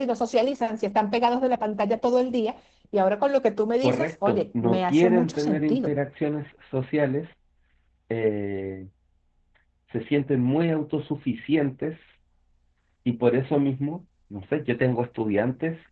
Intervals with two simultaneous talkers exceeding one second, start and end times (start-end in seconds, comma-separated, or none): 3.8-5.9